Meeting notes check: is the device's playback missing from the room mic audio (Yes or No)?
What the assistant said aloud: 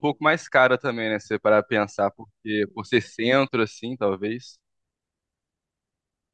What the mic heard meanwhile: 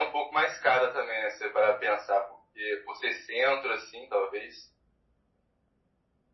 No